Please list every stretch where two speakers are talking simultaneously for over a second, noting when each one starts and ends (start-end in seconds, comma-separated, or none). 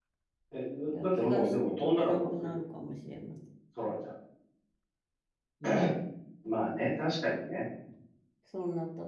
1.0-2.6